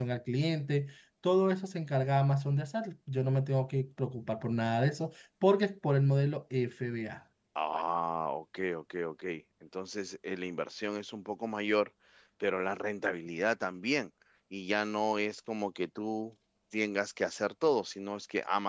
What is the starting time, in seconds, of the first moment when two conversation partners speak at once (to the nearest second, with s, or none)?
none